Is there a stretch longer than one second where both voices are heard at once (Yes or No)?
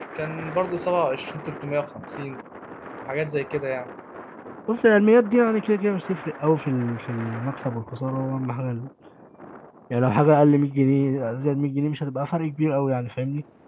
No